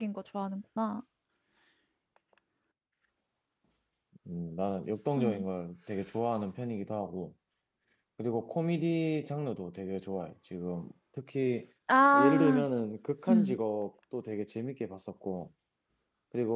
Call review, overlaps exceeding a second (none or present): none